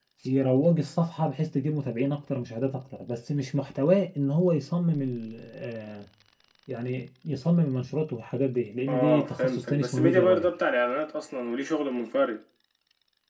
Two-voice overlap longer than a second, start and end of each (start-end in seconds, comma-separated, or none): 8.9-10.5